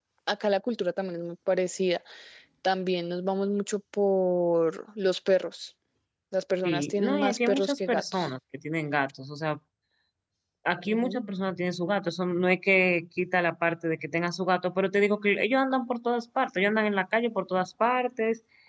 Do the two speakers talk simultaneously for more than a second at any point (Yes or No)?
Yes